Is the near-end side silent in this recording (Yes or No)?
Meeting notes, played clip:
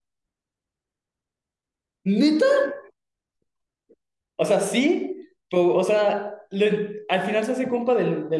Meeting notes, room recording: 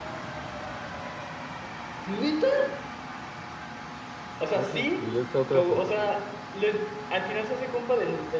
No